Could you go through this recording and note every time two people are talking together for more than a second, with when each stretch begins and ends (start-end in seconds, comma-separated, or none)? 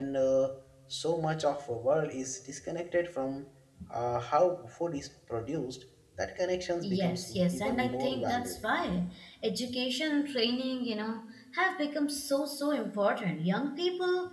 6.8-8.6